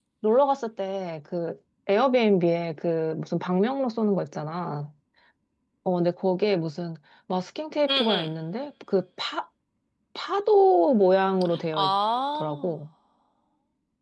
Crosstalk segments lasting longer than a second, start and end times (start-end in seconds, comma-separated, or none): none